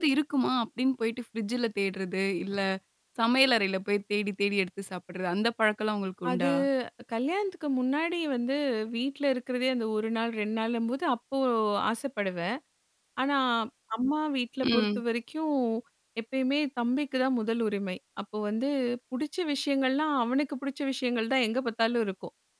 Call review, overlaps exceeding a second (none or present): none